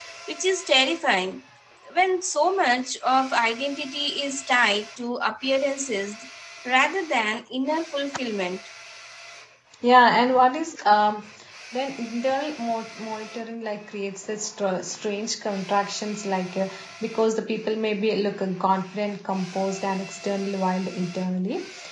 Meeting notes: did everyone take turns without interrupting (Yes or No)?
Yes